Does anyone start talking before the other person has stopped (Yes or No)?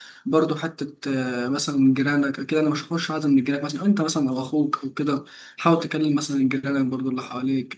No